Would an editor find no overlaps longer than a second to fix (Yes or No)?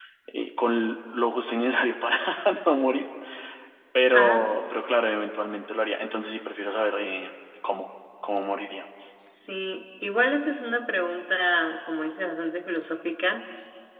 Yes